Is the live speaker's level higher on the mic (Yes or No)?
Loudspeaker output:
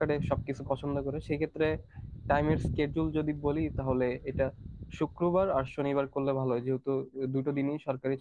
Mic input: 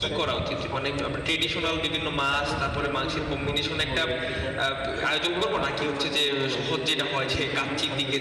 Yes